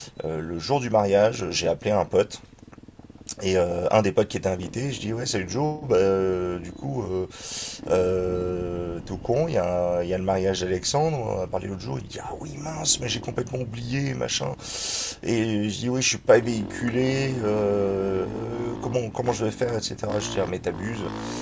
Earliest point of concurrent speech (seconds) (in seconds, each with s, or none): none